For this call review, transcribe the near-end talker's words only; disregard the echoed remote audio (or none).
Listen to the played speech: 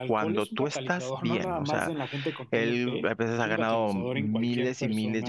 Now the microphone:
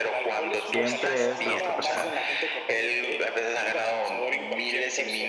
Siempre es la otra persona.